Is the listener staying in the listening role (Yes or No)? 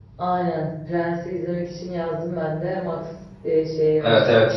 No